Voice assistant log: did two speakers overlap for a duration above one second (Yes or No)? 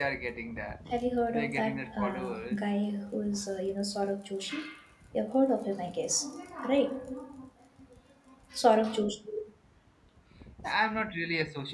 Yes